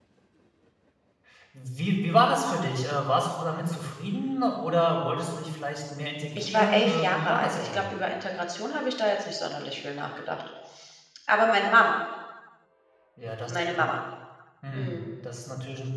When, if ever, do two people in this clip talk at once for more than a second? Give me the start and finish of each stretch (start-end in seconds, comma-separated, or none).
6.3-7.8